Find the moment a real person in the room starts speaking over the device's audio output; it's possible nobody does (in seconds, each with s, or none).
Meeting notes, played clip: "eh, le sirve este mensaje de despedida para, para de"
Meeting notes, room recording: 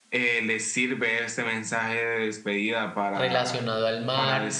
3.1 s